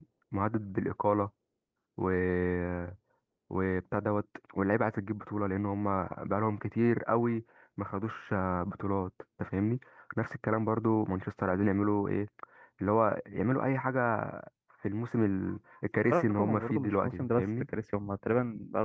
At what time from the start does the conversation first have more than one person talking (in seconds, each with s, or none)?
16.1 s